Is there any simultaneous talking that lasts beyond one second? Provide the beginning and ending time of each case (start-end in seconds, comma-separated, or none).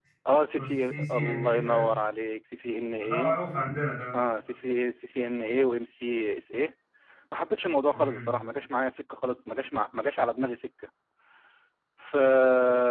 0.6-2.0